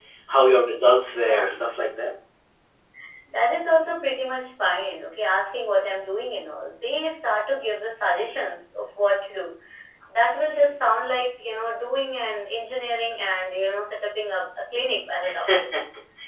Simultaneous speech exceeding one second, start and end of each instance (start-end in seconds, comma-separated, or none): none